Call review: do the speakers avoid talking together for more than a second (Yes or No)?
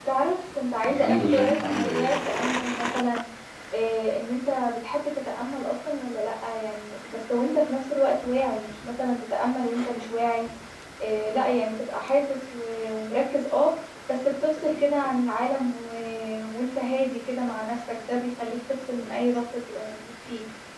No